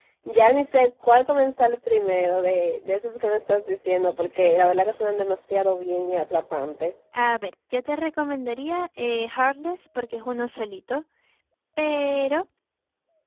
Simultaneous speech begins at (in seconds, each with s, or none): none